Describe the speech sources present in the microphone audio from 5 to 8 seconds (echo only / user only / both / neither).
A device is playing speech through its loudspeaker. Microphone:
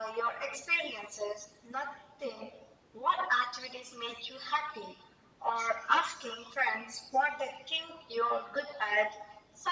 echo only